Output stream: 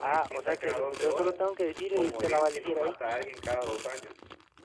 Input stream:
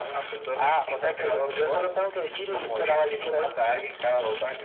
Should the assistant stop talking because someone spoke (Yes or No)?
No